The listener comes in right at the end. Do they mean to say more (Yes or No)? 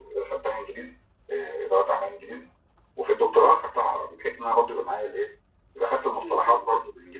No